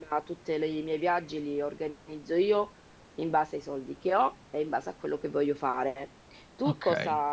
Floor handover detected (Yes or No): No